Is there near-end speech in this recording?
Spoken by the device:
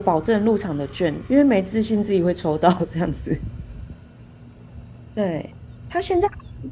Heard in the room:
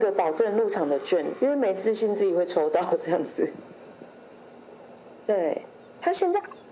No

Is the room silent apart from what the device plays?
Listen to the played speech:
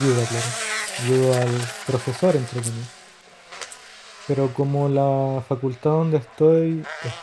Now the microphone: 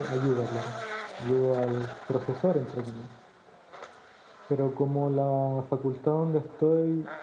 Yes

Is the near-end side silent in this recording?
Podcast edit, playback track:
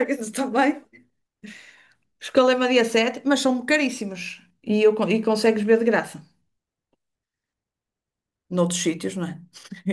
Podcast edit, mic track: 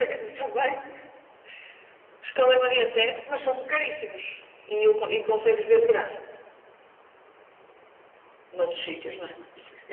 Yes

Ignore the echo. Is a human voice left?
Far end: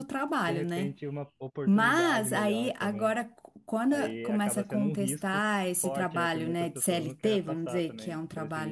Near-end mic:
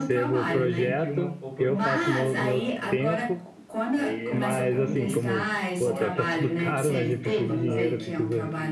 Yes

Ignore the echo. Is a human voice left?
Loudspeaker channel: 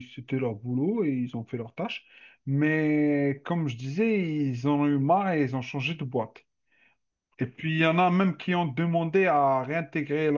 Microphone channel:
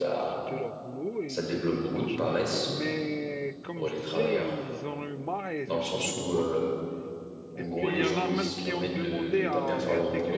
Yes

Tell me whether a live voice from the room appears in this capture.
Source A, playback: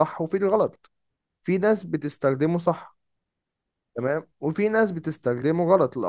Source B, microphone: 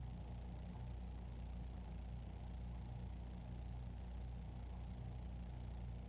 No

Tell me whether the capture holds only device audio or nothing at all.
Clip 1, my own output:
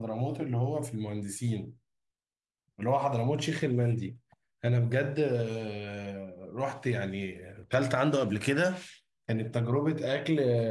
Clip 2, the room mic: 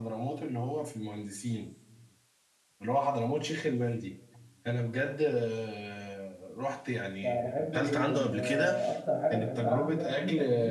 No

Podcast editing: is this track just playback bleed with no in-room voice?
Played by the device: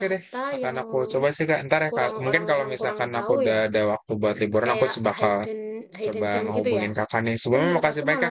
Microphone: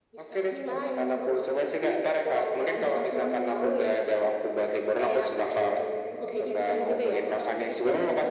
No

